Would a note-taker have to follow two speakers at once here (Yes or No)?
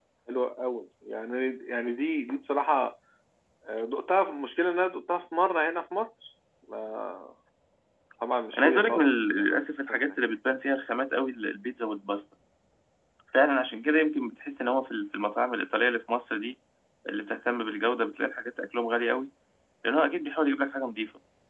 Yes